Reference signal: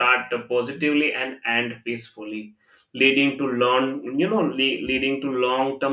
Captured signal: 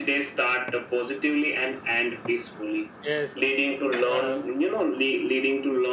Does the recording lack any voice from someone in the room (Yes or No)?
No